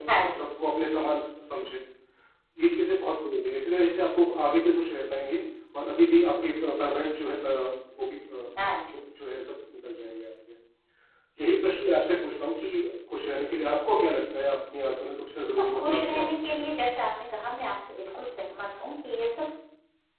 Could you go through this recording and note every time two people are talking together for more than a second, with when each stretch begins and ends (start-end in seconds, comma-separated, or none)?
15.4-16.7